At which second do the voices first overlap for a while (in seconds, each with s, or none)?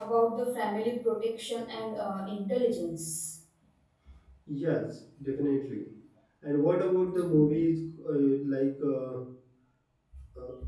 none